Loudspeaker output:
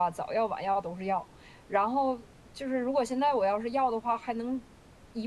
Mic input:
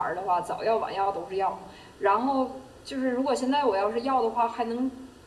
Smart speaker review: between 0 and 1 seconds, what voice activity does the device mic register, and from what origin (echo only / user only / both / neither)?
echo only